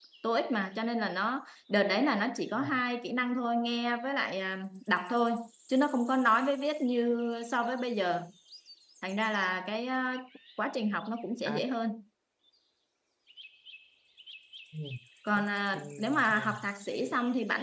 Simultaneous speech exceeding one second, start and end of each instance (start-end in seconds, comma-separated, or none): 15.4-16.6